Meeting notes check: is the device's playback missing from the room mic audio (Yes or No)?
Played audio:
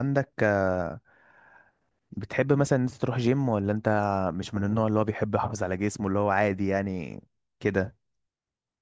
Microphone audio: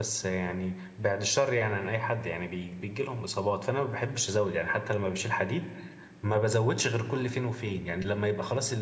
Yes